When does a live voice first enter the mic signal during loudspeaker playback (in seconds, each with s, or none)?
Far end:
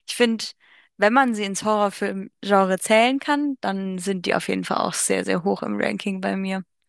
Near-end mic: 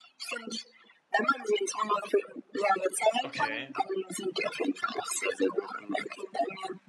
3.2 s